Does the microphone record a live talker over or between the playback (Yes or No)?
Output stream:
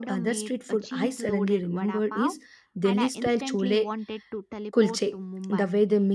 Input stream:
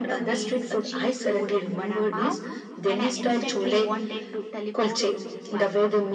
No